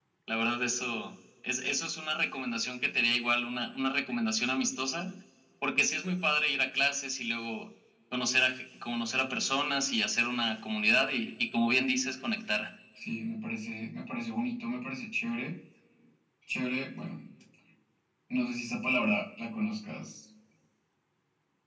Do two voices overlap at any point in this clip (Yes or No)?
No